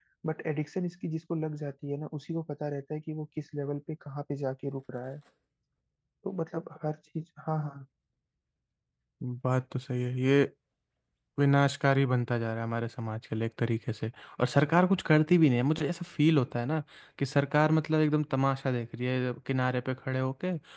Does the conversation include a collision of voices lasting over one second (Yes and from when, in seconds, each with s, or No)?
No